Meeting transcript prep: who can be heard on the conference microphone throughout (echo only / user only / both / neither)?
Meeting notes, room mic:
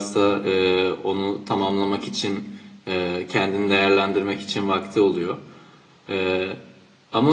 echo only